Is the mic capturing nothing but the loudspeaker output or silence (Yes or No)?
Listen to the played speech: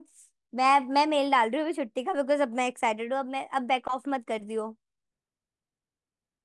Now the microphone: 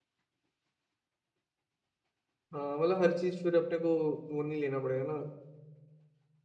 No